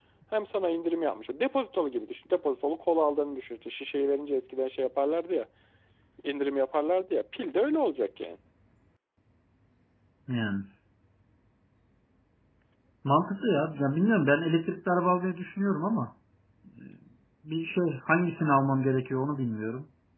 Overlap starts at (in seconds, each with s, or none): none